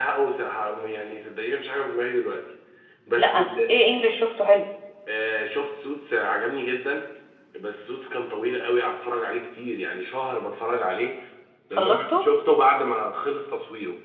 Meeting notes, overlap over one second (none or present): none